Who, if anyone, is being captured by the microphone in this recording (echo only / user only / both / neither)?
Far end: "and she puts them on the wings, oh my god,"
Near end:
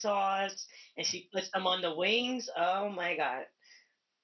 echo only